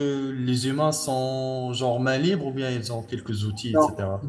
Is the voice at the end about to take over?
Yes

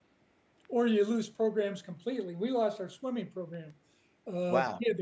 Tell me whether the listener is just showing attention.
Yes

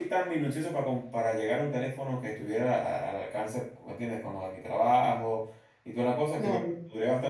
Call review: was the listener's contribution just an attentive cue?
Yes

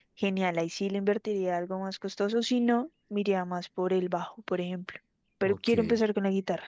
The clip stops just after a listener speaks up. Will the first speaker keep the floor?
Yes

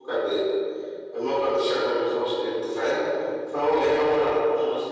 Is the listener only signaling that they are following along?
Yes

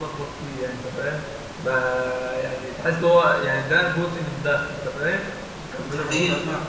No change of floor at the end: No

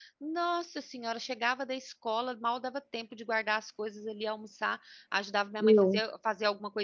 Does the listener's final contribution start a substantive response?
No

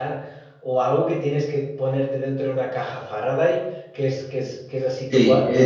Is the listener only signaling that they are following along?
No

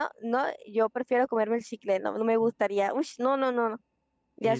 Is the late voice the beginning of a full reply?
Yes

